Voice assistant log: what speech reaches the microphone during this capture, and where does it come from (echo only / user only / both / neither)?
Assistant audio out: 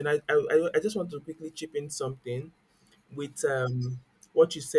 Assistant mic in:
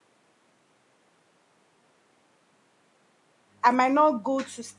user only